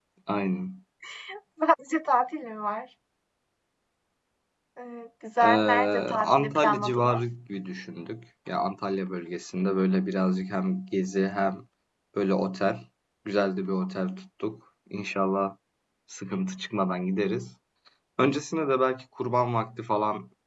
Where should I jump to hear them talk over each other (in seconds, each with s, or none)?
5.4 s